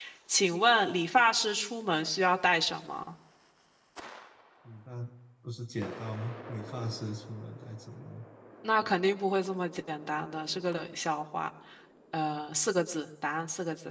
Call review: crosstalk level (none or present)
none